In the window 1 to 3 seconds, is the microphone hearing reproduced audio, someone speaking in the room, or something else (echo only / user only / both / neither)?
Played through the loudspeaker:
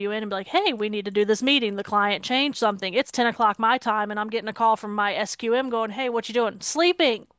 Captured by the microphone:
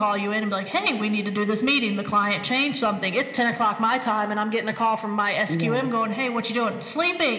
echo only